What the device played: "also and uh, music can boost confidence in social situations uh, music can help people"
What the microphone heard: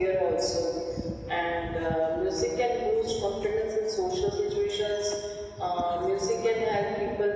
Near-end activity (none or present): none